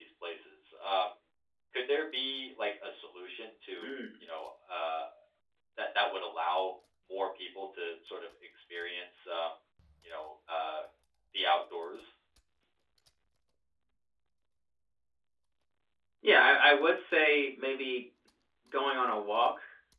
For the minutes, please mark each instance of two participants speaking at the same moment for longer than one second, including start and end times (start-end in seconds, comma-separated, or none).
none